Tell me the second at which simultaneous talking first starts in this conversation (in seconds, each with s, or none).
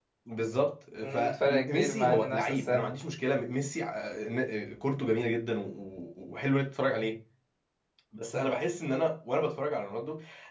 1.0 s